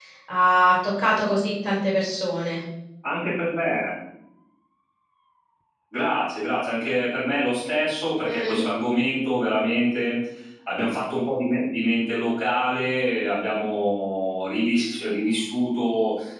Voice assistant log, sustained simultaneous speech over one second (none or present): none